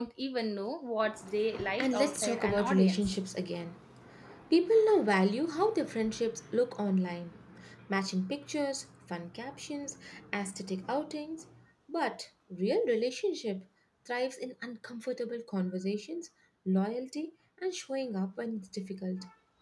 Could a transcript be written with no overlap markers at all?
No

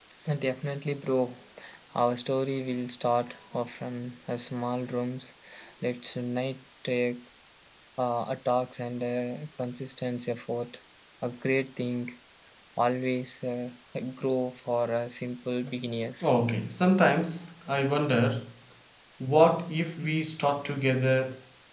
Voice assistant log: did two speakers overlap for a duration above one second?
No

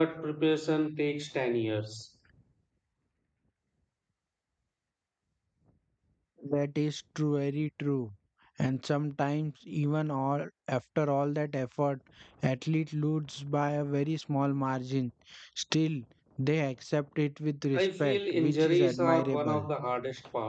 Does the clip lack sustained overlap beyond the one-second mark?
No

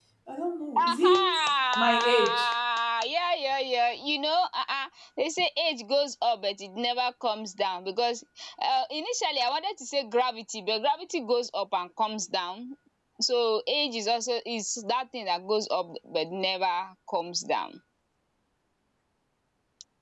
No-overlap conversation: No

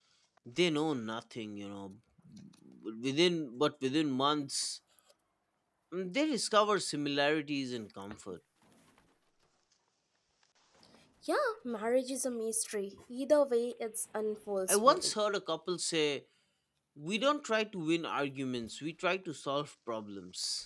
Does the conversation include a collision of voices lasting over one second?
No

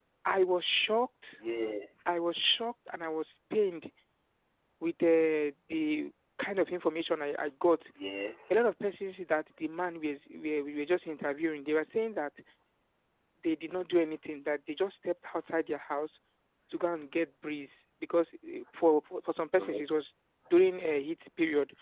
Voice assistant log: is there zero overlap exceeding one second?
Yes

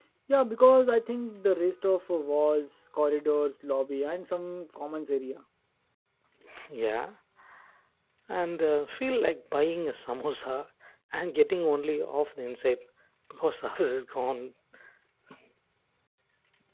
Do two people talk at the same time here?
No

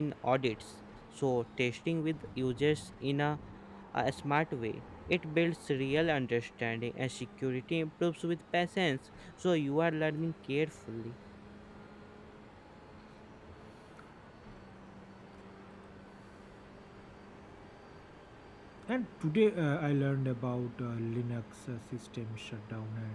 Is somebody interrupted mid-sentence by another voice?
No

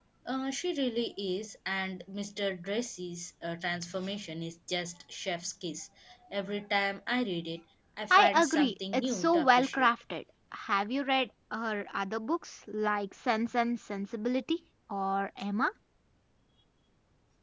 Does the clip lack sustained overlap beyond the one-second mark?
No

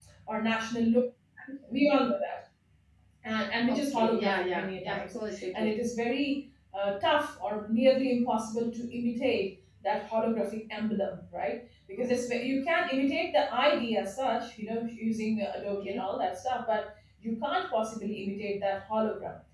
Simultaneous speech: Yes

